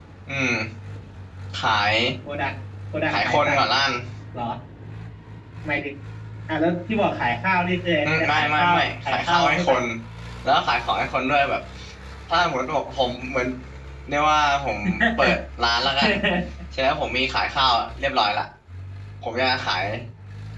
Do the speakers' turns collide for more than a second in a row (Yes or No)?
Yes